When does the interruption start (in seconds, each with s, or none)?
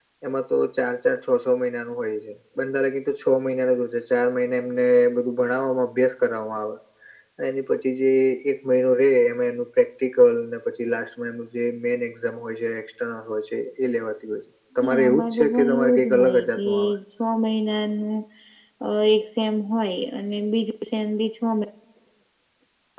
14.8 s